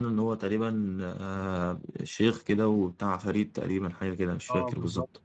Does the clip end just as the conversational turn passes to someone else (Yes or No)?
Yes